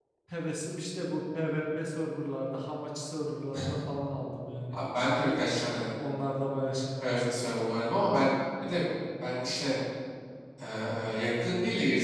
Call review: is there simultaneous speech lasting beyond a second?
No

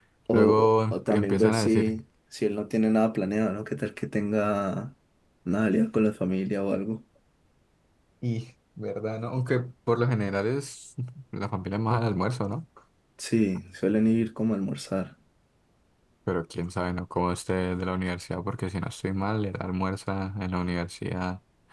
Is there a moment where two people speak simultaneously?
Yes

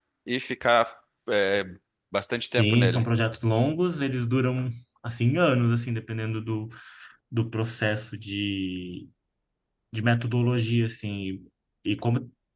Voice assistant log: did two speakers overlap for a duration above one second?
No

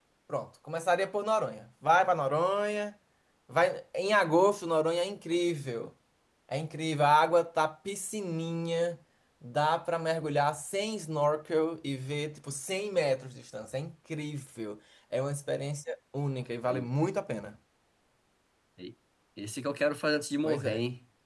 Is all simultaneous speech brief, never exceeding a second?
Yes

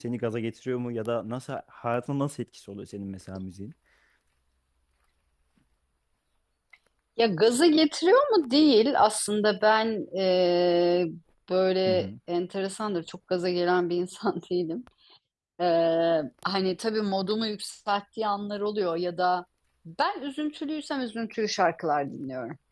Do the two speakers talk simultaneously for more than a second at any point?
No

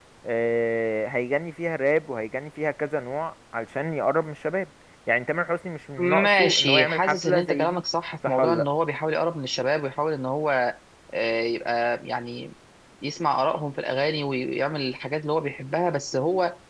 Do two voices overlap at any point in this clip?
Yes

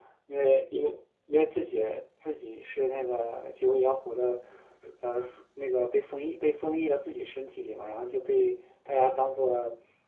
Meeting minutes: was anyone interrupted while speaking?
No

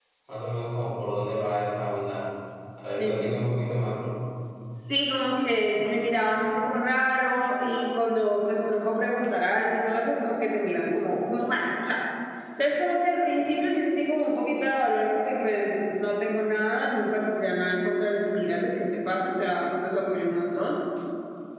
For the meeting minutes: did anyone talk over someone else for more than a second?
No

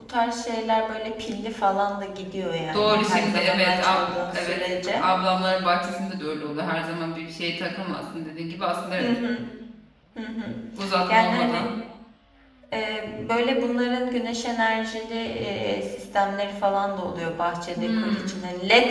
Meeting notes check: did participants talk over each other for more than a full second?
Yes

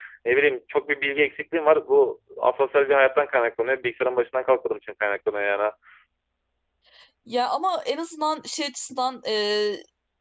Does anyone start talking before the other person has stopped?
No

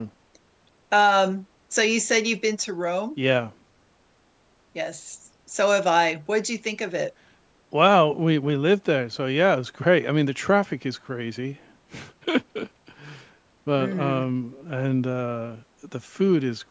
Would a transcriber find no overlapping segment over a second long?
Yes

